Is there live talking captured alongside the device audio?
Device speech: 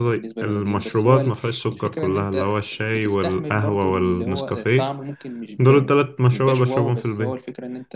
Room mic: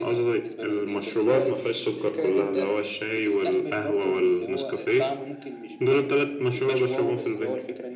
No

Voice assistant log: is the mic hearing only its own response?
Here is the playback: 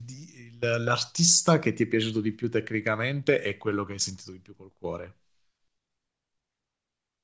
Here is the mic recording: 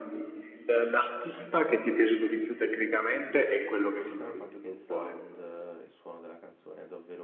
No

